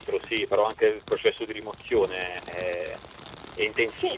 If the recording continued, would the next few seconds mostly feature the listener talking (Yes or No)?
Yes